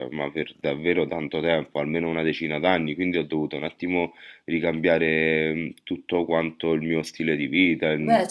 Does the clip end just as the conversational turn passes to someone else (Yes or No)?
Yes